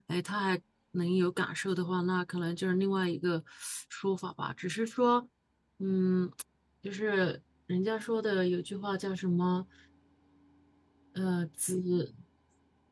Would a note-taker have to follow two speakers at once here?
No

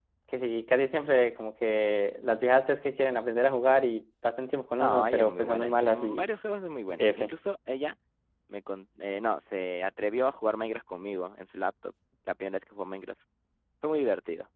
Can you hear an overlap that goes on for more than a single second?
Yes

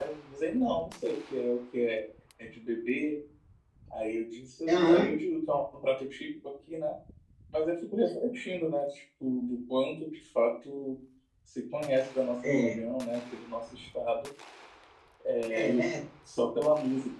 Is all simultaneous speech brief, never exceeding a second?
Yes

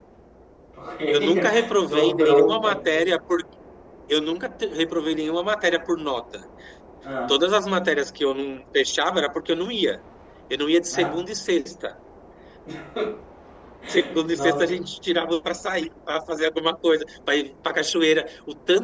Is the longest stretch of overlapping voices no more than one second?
No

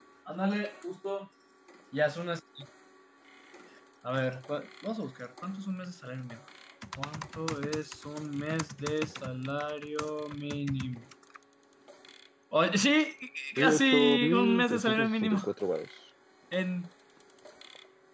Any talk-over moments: Yes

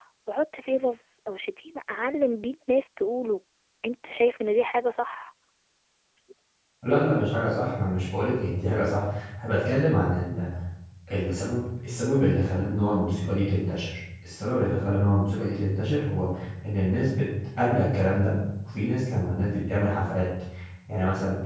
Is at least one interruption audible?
No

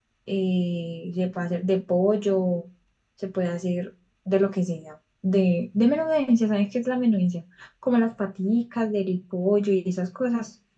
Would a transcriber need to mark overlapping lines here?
No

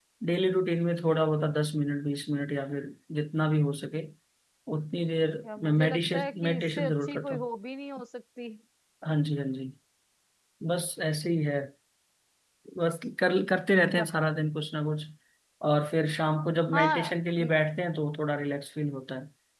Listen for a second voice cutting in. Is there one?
Yes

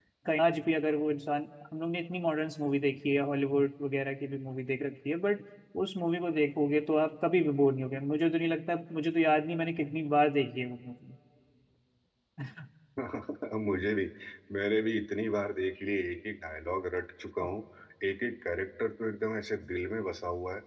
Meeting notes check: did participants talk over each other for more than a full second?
No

